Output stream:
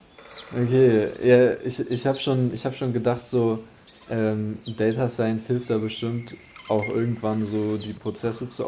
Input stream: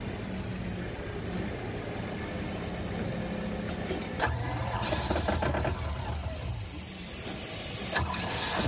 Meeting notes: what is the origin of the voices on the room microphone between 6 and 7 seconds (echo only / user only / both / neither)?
neither